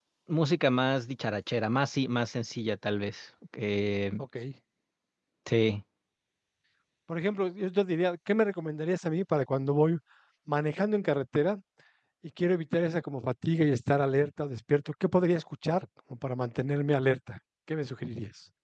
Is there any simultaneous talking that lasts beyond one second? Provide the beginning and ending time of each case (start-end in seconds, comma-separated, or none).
none